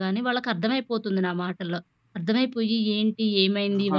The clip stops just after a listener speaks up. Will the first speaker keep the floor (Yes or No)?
Yes